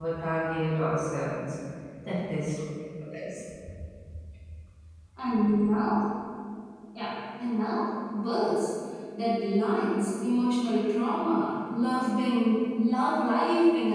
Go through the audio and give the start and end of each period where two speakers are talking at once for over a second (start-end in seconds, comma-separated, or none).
none